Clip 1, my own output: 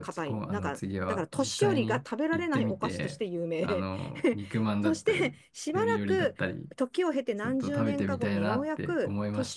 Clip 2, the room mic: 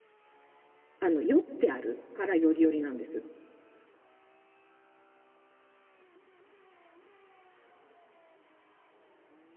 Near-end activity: present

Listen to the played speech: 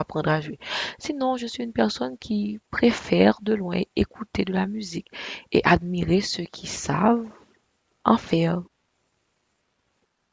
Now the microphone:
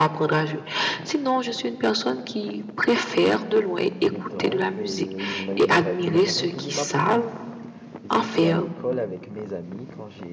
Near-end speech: present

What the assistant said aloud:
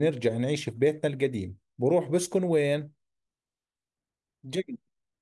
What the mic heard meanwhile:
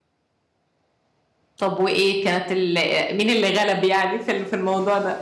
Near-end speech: present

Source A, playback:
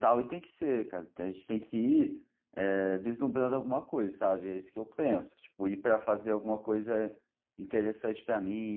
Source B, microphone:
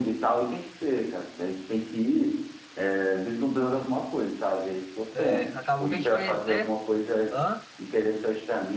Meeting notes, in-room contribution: present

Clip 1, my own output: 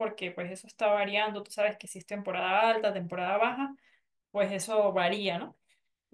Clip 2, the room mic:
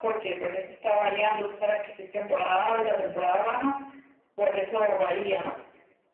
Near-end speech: none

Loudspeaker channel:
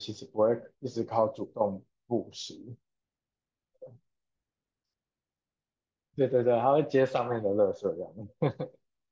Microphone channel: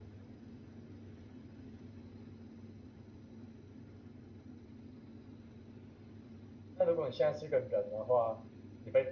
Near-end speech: present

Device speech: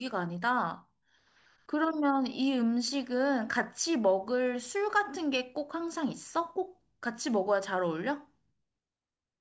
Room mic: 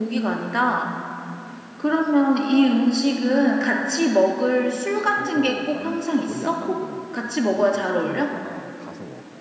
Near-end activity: present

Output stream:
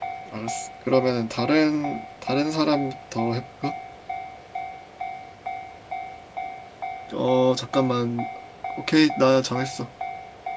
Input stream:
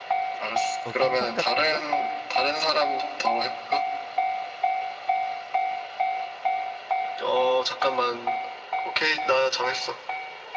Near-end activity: present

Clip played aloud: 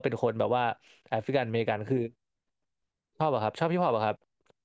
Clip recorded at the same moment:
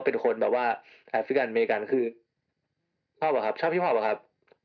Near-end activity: none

